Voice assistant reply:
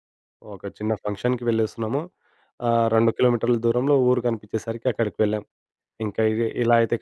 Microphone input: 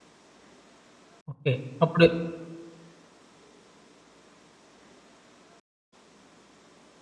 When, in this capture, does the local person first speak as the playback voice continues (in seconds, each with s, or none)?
1.3 s